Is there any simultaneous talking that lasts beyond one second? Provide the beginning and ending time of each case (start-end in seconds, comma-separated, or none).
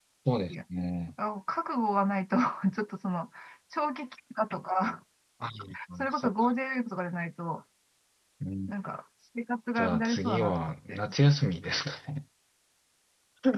9.8-11.0